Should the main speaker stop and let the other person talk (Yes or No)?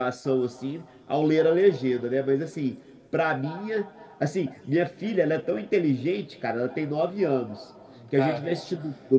No